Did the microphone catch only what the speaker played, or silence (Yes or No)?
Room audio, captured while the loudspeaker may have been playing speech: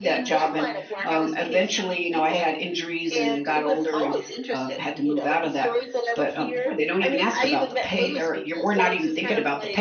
No